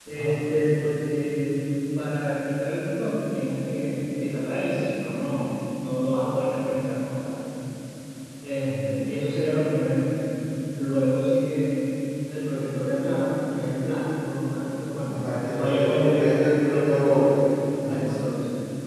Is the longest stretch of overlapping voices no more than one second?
No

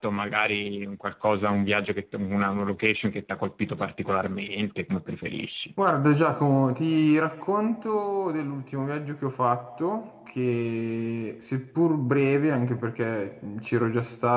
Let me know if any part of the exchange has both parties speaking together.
No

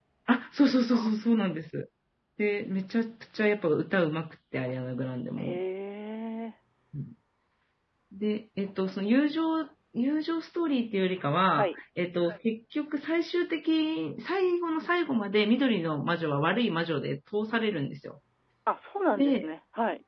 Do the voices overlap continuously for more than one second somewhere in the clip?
No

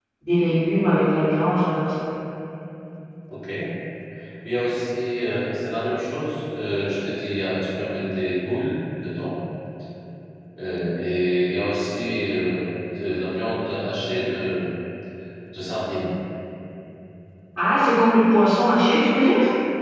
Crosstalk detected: No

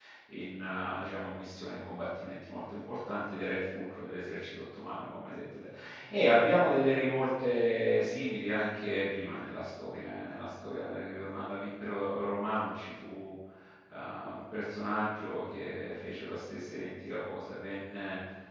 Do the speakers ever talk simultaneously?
No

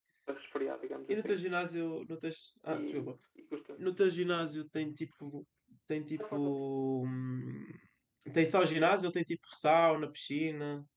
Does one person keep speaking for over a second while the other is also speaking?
No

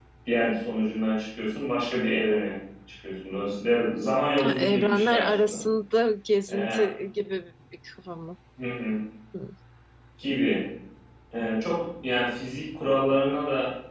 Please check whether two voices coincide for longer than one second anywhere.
Yes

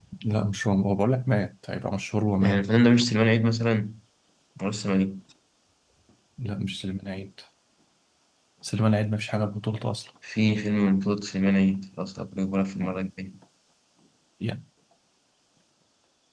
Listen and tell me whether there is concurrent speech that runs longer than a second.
No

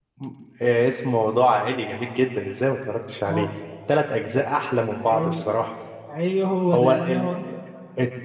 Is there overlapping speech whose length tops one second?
No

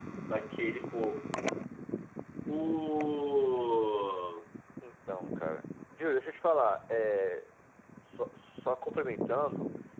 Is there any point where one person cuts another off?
No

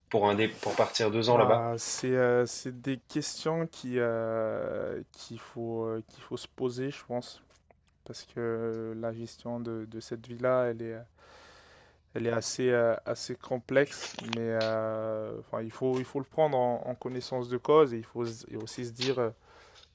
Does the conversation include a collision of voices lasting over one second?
No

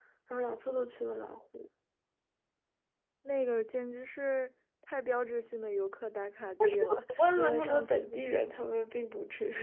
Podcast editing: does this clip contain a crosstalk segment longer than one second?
Yes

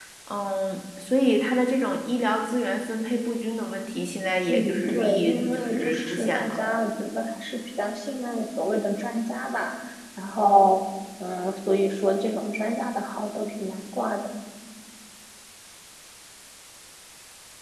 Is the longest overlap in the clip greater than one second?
Yes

